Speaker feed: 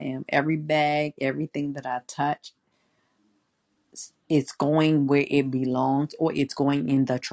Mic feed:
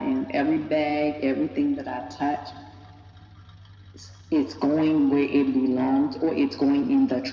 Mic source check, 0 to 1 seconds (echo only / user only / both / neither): echo only